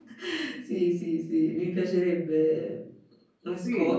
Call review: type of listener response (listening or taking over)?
taking over